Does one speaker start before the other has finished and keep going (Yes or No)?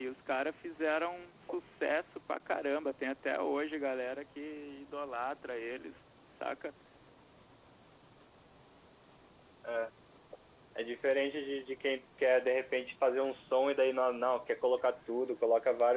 No